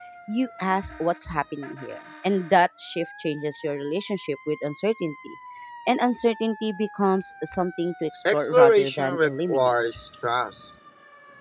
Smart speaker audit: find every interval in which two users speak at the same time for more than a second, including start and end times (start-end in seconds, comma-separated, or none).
8.3-9.8